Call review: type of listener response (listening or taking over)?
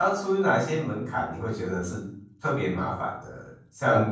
listening